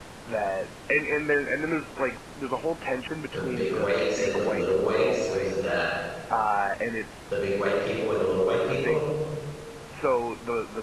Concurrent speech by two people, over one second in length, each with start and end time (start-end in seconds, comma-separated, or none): 3.3-5.8